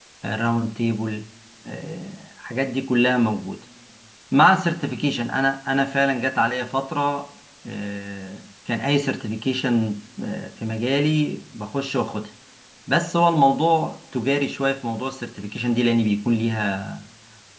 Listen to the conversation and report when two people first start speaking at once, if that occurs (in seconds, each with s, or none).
none